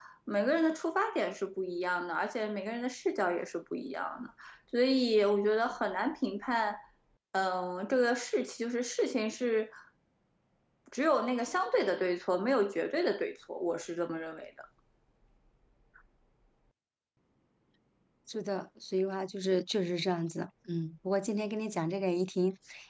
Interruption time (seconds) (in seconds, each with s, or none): none